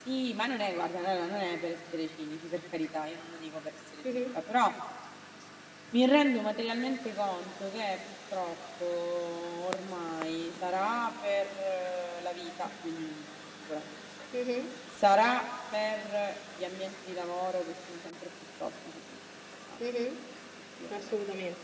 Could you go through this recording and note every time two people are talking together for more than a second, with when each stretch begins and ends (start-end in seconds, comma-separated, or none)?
none